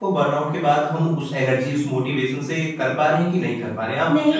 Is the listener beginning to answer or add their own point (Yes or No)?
Yes